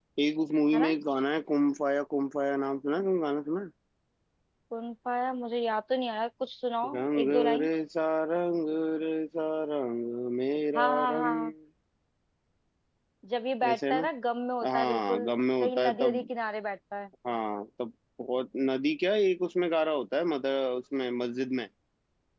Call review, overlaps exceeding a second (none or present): present